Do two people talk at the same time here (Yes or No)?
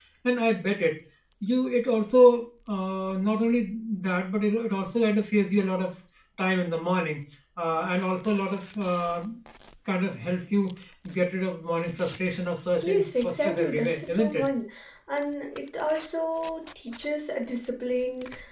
Yes